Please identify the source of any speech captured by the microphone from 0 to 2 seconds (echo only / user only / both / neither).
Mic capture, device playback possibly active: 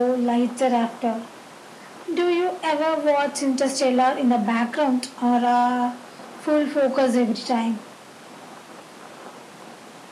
echo only